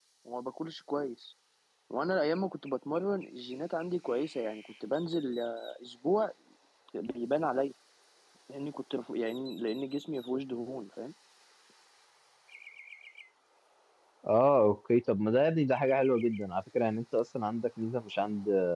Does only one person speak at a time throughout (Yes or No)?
Yes